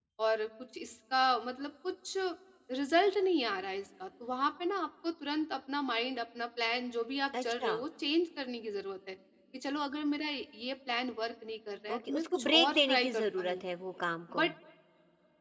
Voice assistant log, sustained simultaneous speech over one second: present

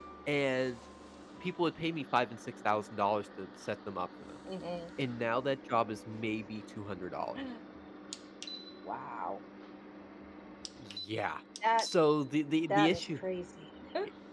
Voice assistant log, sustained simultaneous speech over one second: none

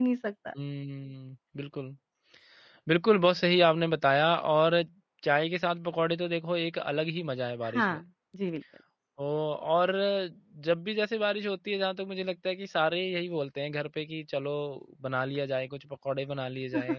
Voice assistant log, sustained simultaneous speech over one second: none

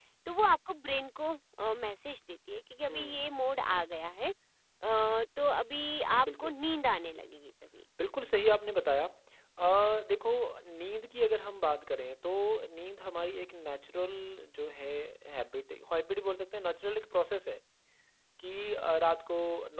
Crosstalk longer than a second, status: none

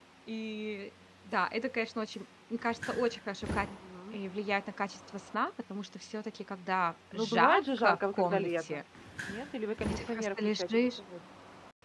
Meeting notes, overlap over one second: present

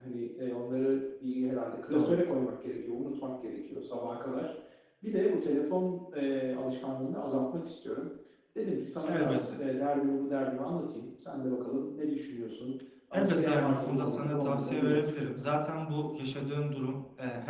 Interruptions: present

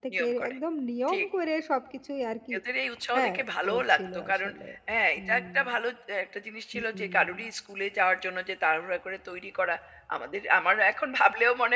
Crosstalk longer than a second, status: present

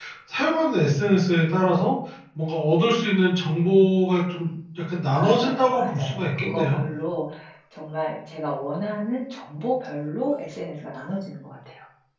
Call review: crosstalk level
present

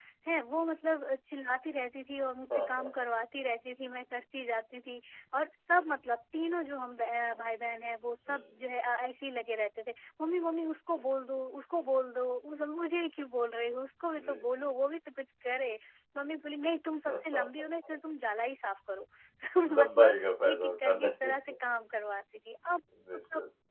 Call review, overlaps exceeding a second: present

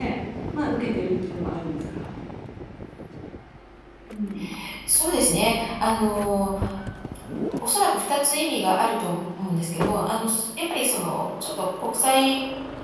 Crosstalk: none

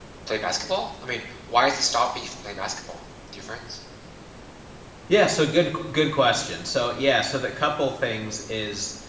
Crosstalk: none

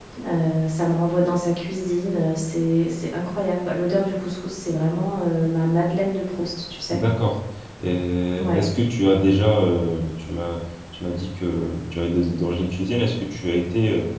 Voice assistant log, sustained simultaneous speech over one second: none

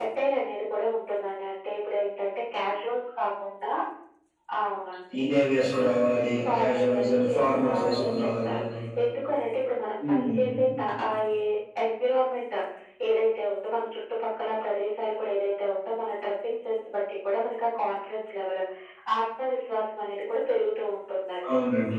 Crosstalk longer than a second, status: present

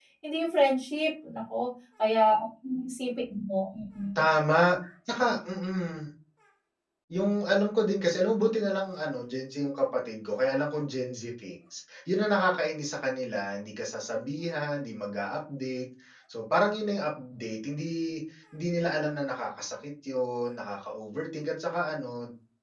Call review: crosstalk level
none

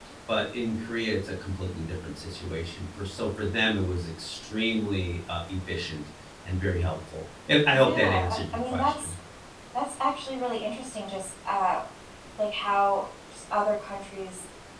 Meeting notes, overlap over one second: present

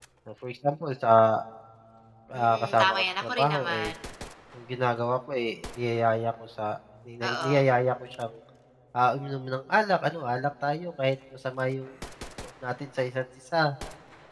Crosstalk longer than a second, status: present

